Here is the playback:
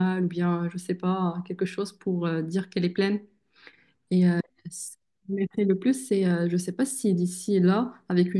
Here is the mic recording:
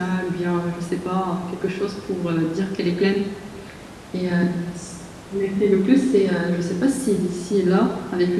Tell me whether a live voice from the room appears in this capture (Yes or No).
No